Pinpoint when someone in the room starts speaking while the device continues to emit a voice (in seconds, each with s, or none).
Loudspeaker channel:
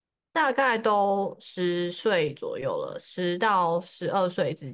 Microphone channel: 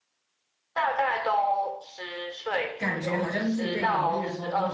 2.8 s